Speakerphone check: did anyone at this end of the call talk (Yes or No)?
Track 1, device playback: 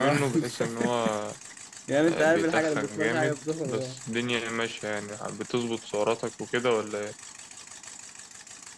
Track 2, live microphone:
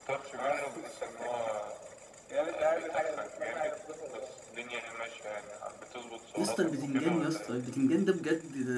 Yes